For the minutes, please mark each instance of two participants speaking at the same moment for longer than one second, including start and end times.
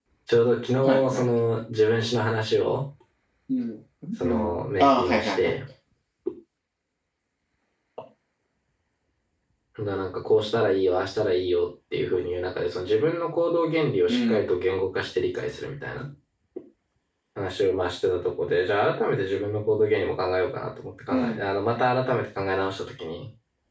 4.2-5.5

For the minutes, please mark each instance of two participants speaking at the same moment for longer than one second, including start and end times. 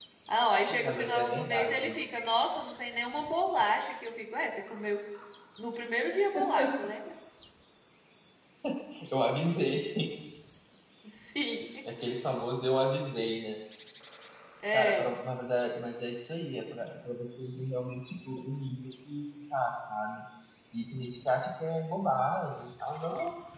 0.7-2.0

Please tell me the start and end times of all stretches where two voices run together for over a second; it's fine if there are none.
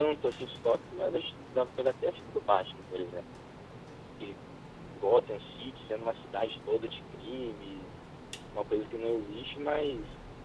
none

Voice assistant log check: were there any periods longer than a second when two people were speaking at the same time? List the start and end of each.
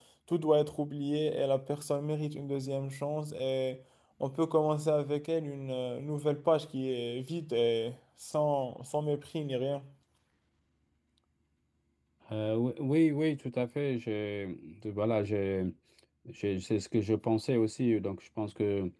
none

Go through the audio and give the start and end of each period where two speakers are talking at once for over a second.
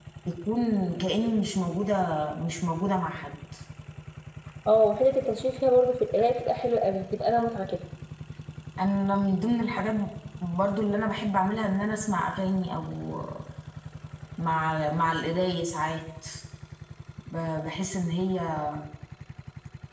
none

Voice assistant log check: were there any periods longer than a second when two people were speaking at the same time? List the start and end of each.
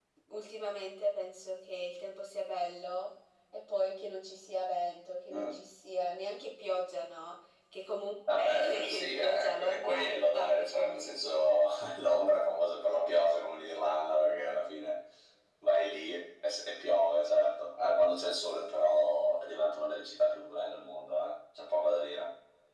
8.4-11.1

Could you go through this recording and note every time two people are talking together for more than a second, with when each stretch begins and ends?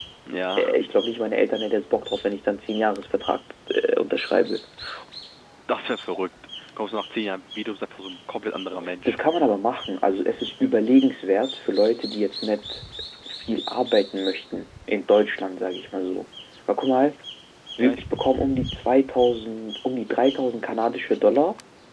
none

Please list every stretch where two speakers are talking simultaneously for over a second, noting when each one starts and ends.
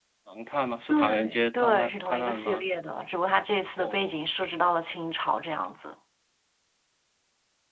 0.9-2.6

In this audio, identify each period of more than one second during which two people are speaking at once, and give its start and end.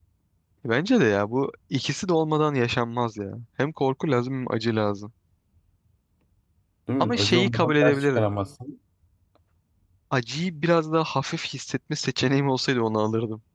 7.0-8.3

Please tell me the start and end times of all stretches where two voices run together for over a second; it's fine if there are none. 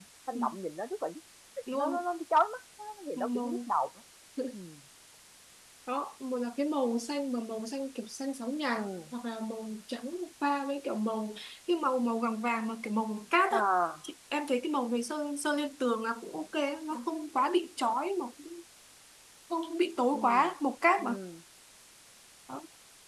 none

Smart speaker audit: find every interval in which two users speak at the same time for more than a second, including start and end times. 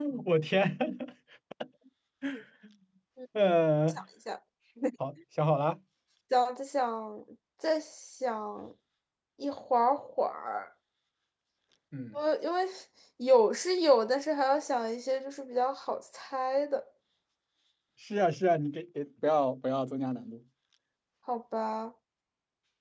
none

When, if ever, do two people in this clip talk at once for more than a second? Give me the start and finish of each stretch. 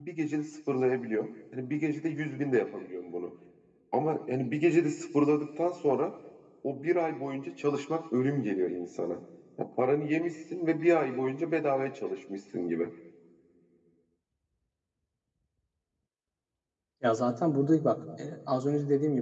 none

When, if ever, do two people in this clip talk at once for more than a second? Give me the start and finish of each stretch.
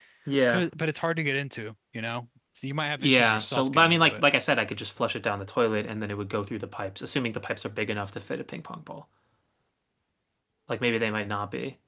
3.0-4.2

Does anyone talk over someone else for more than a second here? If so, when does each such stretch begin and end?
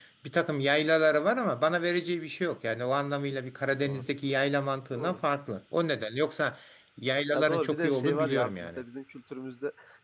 7.3-8.8

